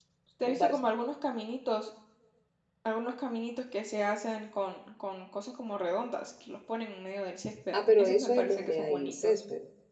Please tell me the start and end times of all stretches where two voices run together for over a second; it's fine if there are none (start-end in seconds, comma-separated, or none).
7.7-9.4